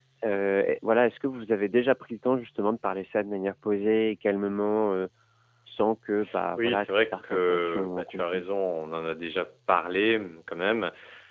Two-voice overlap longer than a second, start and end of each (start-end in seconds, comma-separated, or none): 6.6-8.4